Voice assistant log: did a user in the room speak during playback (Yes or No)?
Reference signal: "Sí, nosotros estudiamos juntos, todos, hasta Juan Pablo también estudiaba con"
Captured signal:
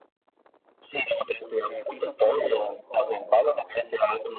Yes